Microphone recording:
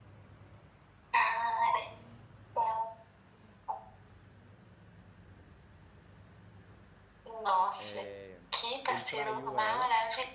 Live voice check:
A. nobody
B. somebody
B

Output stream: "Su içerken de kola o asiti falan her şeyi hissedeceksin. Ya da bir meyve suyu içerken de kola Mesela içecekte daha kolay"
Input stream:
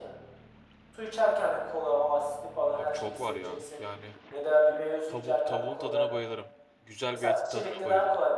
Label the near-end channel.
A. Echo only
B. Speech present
B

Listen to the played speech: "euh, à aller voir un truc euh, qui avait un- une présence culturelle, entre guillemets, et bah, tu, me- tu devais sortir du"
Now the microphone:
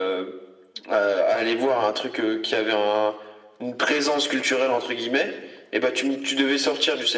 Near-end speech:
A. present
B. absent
B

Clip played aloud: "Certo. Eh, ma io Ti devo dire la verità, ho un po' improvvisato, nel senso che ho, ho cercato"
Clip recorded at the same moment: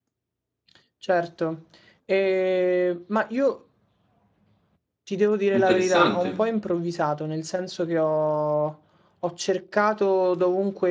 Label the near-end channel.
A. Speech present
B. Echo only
A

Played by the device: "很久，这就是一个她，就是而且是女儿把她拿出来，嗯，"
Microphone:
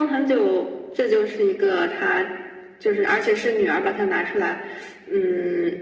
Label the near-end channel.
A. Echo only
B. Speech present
A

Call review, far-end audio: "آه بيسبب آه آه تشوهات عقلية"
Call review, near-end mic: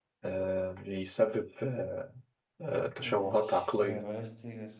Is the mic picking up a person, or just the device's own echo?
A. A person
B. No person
A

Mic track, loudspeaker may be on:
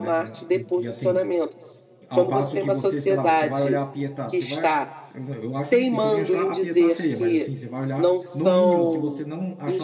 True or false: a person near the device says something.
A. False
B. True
B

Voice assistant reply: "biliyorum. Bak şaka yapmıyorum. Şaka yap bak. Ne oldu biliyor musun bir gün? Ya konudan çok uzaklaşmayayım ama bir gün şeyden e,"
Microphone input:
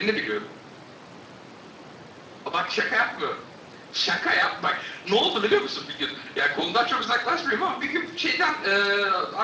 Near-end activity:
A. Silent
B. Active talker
A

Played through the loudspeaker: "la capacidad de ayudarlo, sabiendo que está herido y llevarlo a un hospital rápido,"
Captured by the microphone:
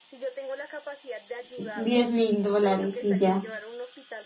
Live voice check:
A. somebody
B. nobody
A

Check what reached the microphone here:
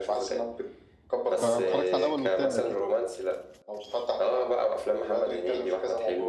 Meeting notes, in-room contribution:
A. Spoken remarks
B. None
A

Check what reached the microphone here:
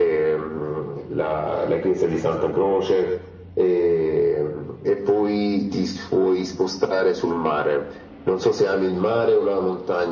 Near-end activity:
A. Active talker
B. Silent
B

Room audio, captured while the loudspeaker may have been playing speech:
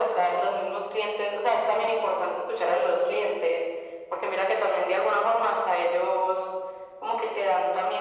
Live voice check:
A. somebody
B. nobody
B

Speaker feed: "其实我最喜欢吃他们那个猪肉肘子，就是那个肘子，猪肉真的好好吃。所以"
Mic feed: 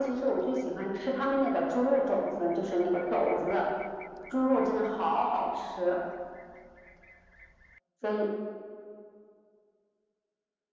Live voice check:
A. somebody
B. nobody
B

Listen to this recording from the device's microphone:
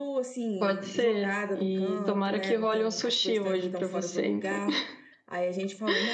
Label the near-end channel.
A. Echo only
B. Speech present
B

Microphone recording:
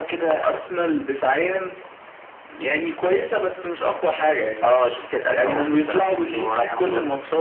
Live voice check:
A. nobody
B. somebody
A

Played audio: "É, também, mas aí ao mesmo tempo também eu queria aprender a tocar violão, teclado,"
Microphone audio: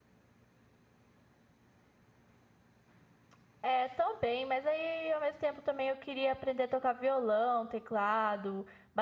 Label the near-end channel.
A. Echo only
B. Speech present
A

